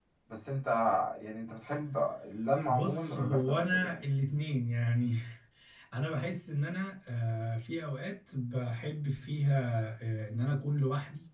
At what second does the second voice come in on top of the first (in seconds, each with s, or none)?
2.7 s